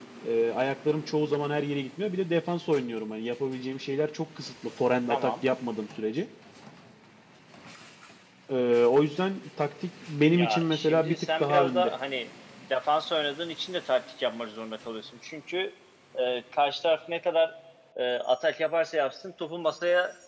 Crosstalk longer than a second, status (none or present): present